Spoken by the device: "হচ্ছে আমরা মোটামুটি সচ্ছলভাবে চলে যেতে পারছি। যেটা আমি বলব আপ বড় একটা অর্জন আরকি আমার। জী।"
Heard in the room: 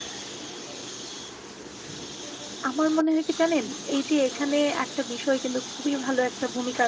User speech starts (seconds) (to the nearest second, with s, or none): 3 s